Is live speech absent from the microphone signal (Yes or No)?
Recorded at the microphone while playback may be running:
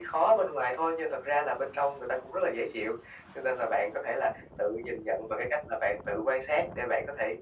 Yes